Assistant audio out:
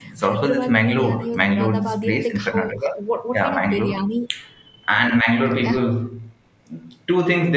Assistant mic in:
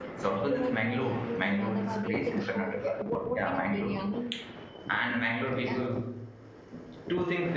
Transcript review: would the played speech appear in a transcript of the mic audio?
Yes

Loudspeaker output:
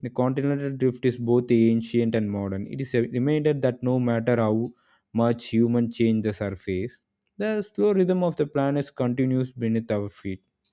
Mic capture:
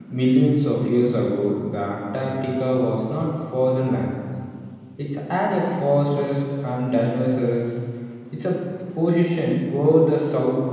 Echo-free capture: Yes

